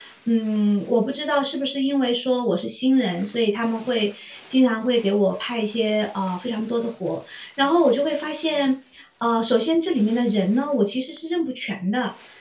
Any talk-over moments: No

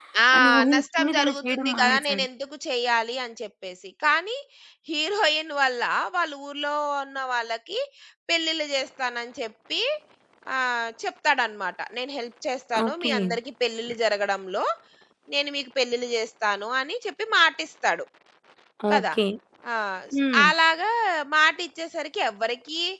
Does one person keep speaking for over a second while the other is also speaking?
Yes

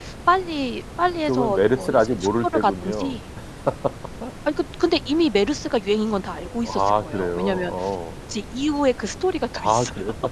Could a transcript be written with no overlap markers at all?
No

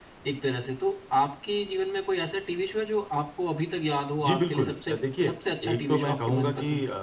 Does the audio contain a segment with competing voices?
Yes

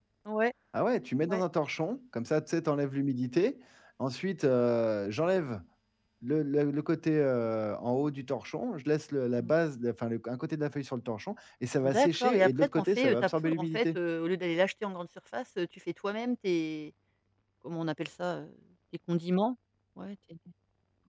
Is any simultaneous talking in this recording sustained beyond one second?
Yes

